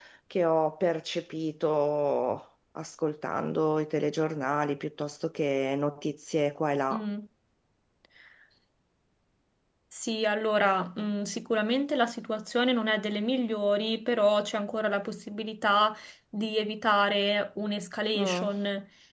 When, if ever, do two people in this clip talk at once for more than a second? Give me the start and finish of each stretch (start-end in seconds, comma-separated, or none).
none